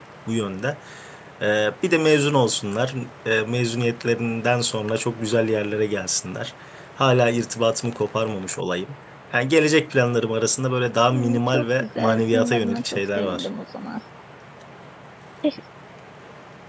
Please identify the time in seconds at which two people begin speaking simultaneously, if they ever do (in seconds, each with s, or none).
11.1 s